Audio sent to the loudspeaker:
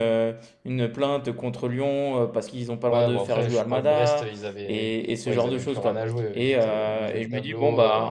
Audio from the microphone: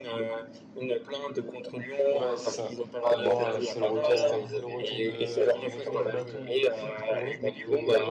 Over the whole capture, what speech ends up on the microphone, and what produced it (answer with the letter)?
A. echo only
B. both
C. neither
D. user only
B